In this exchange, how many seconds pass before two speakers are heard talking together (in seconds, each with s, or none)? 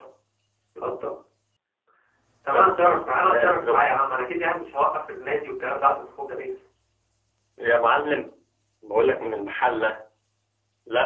2.5 s